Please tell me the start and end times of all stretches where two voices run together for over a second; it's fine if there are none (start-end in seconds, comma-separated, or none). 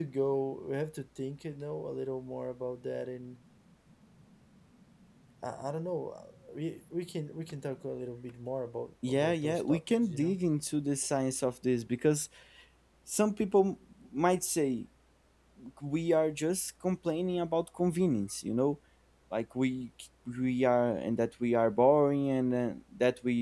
9.1-10.4